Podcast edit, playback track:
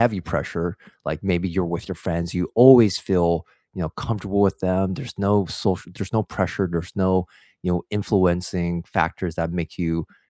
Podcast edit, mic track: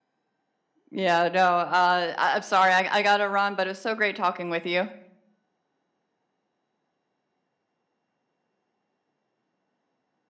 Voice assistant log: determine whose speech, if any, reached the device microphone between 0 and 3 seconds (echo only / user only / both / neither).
user only